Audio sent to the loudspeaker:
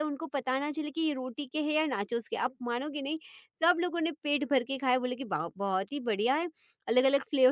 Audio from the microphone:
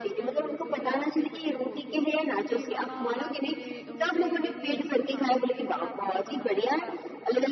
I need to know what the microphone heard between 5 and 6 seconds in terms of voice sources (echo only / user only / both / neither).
both